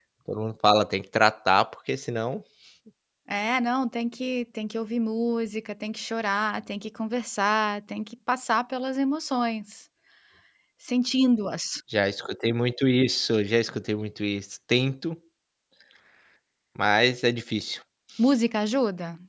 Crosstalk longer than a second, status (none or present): none